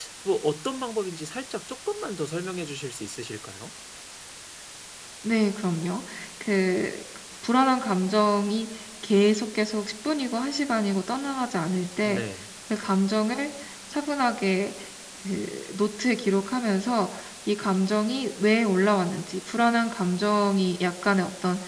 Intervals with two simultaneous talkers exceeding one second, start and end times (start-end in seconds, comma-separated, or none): none